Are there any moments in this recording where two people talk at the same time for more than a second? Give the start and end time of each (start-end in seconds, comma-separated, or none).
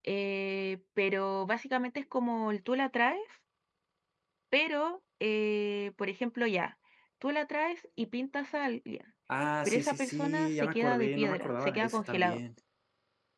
9.6-12.4